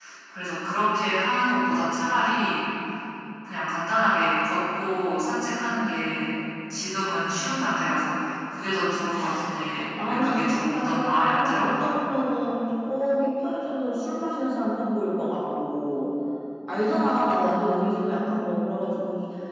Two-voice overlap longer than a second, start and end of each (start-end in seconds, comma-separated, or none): 9.7-11.7